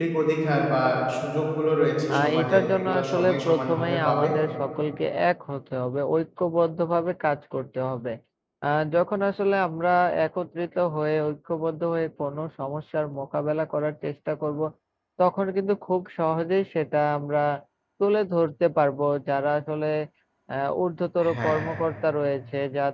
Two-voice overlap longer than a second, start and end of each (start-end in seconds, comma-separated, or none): 2.1-4.3